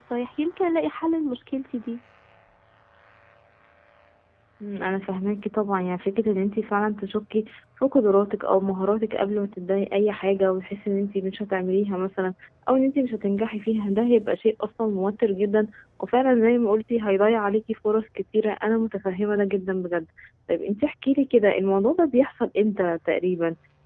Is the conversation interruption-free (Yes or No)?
Yes